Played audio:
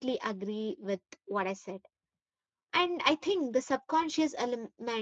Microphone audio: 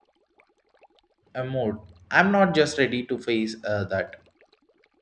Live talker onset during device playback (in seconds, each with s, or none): 1.3 s